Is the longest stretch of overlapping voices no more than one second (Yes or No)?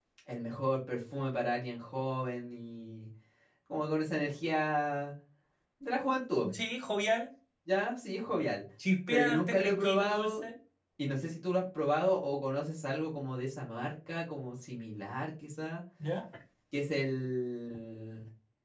No